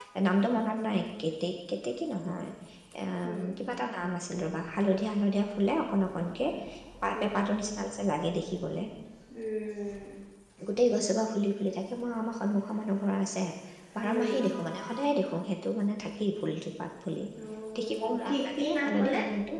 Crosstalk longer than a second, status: present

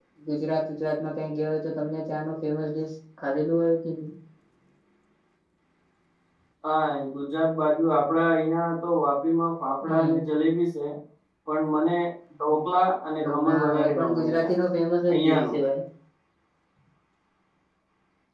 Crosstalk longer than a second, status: present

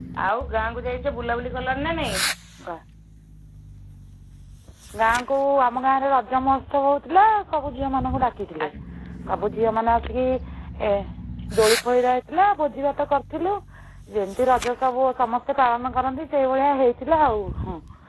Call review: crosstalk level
none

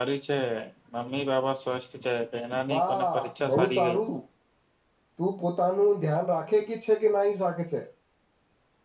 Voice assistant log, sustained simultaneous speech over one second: present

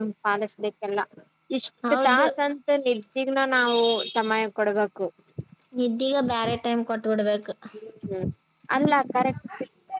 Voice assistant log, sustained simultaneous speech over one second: none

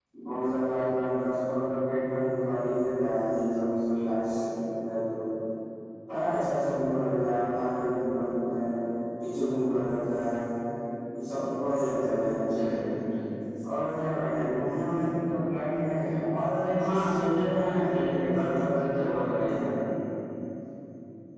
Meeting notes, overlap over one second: none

